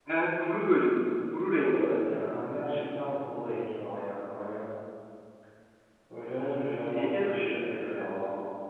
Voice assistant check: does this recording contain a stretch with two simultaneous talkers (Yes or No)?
Yes